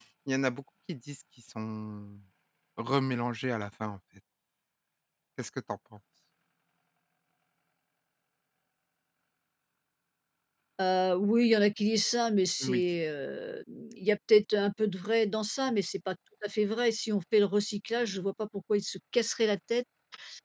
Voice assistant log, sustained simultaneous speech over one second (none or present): none